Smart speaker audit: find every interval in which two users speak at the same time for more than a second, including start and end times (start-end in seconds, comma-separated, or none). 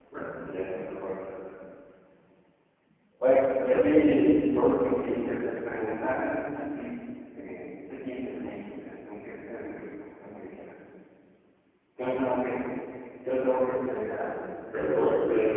none